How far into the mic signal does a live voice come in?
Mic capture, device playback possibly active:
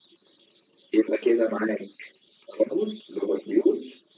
none

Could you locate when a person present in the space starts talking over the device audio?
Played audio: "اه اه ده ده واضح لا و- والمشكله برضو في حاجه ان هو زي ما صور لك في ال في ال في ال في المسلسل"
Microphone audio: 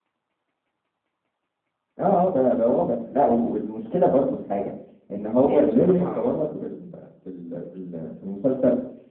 5 s

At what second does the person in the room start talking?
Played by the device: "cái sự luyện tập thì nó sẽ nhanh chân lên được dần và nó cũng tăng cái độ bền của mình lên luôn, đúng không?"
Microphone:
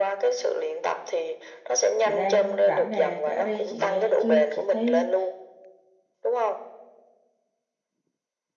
2 s

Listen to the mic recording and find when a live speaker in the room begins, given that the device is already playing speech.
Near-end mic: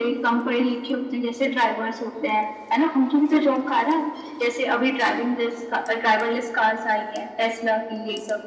none

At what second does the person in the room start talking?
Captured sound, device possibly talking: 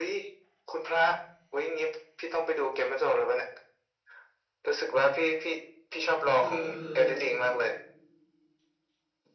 6 s

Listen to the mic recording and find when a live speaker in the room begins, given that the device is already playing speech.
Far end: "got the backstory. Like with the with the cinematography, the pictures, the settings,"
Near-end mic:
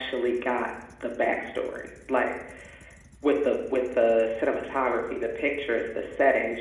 none

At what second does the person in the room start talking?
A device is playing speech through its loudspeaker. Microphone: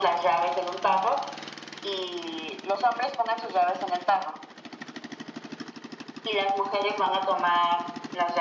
none

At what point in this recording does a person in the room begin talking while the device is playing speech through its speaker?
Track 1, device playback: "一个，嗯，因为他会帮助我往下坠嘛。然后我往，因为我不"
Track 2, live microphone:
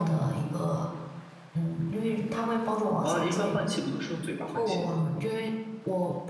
3 s

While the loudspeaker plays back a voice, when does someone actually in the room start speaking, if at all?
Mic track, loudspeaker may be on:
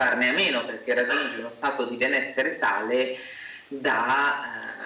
none

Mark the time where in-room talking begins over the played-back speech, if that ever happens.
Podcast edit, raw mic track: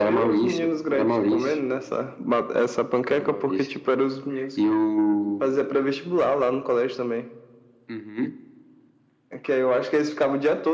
none

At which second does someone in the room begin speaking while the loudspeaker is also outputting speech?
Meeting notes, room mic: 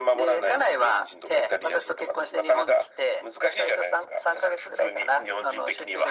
none

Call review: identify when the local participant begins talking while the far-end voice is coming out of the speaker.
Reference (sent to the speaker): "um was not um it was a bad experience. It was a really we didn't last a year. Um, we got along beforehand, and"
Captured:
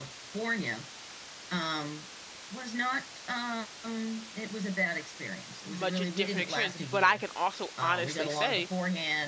6 s

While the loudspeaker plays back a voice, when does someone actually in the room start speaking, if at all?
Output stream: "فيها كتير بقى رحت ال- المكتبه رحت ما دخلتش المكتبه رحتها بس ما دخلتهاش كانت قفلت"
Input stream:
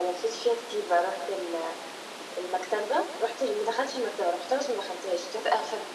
none

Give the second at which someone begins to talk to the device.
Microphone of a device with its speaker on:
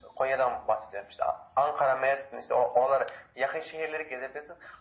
none

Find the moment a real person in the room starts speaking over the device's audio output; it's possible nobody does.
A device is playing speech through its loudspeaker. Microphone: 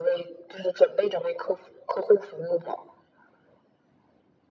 none

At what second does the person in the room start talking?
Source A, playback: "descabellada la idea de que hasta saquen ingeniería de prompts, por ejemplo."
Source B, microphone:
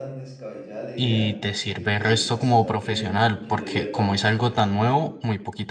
1 s

